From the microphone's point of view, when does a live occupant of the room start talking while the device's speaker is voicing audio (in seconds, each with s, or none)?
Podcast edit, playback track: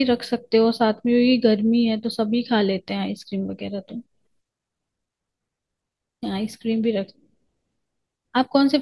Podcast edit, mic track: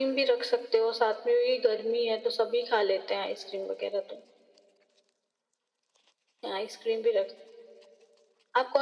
none